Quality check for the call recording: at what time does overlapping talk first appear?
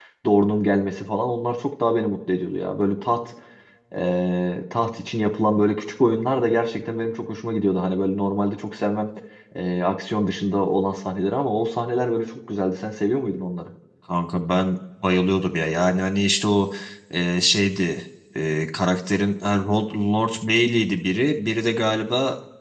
none

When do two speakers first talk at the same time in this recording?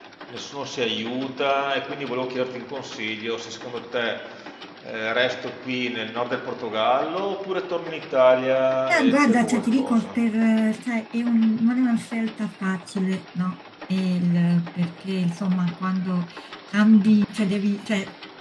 8.9 s

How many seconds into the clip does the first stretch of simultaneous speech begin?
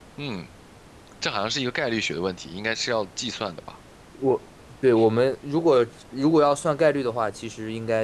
none

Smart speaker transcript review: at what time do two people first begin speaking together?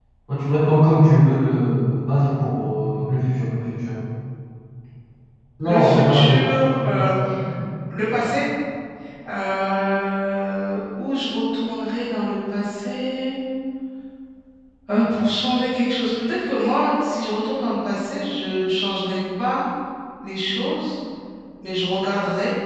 5.6 s

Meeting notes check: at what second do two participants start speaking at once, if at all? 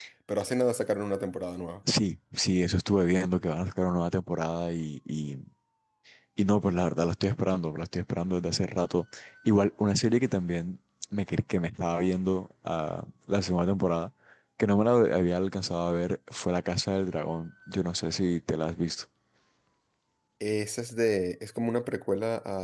none

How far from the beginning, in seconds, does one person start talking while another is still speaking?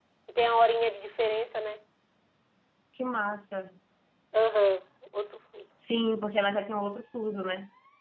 none

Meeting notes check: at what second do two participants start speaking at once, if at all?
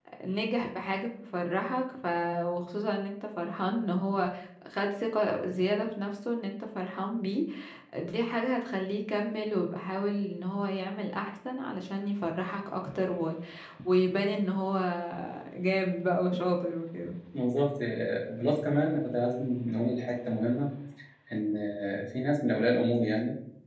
none

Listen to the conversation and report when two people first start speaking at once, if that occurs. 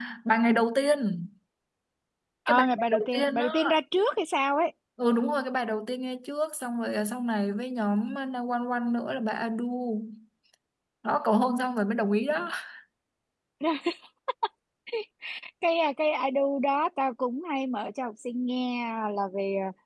2.5 s

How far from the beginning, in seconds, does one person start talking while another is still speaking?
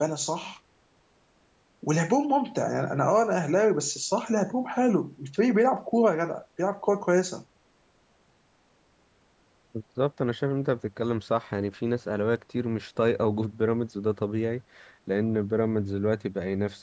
none

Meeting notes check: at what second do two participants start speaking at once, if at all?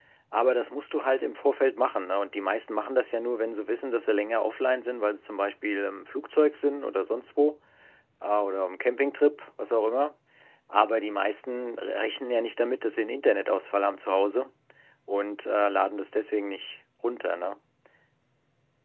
none

